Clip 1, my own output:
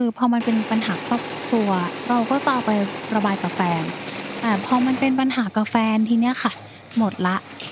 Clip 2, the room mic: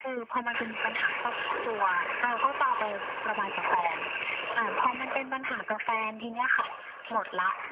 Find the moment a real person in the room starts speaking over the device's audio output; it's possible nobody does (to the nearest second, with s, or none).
none